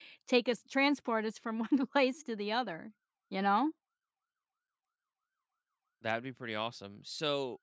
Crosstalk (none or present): none